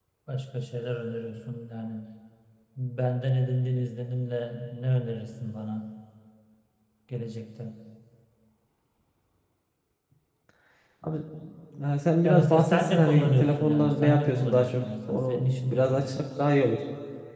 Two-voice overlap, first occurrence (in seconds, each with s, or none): 12.2 s